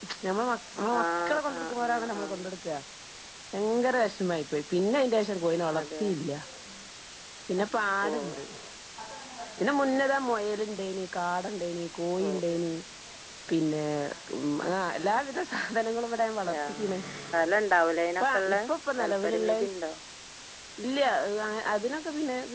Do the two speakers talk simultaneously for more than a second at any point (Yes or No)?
Yes